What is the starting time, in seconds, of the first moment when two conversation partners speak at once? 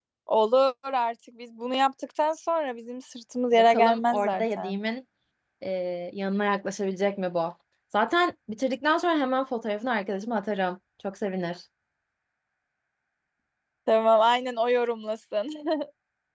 3.5 s

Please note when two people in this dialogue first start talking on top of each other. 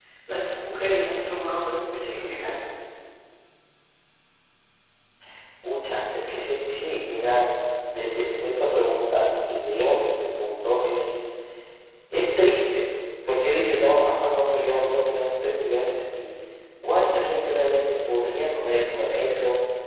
none

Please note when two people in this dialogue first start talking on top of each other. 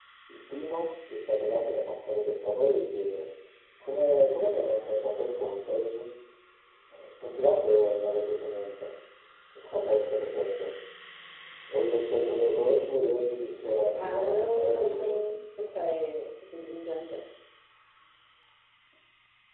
13.9 s

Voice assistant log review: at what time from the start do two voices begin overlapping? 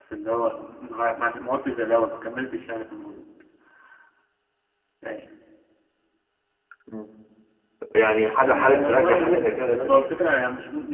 8.4 s

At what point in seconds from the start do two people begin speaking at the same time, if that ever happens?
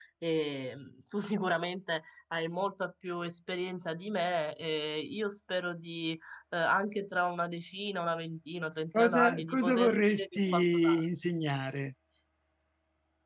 8.9 s

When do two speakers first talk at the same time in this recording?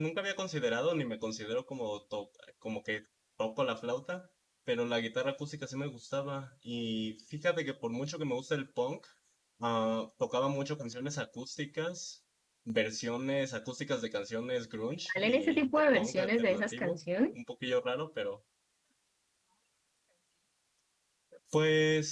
15.1 s

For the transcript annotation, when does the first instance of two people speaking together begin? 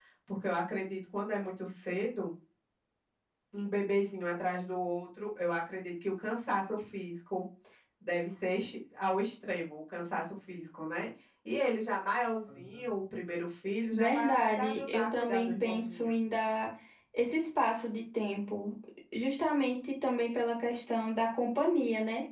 13.9 s

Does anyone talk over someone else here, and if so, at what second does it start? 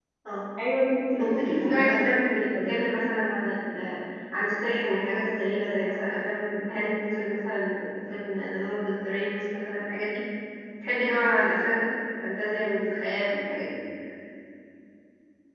1.2 s

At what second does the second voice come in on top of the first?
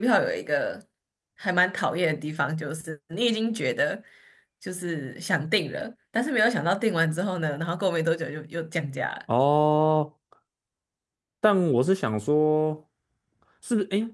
none

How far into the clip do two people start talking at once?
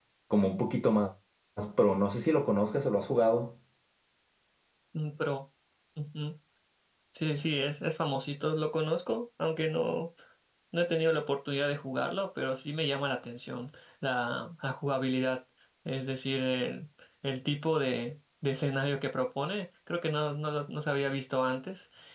none

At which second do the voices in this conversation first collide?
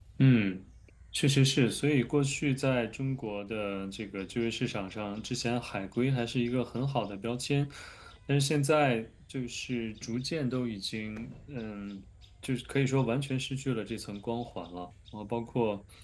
none

